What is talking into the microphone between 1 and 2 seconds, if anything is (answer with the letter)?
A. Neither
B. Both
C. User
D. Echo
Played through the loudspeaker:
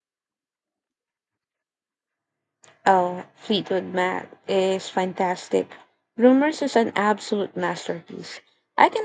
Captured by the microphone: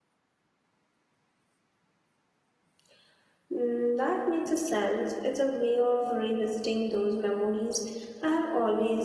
A